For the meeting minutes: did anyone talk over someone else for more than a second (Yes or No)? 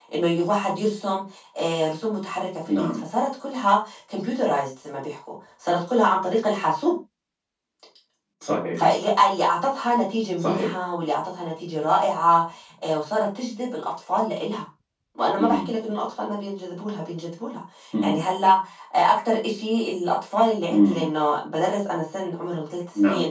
No